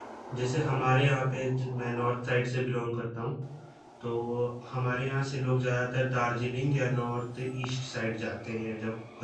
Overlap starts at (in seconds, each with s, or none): none